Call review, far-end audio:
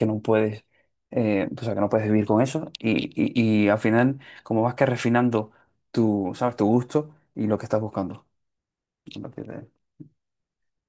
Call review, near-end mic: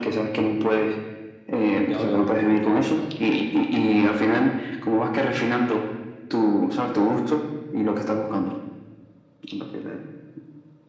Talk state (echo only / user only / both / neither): both